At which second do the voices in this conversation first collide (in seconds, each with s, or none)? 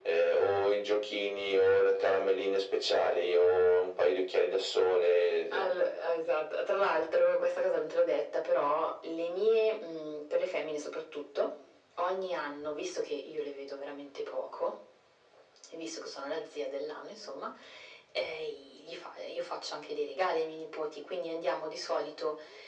none